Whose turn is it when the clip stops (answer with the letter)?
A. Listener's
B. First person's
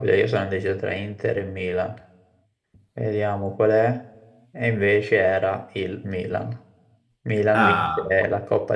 B